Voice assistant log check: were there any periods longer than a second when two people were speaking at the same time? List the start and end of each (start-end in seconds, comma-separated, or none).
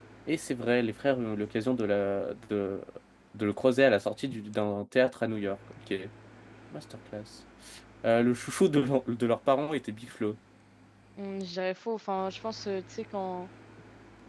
none